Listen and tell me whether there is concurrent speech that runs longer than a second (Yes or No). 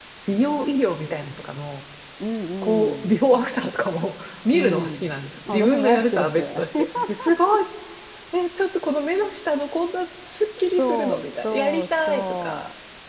Yes